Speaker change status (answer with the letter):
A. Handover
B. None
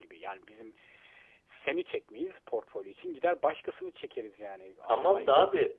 A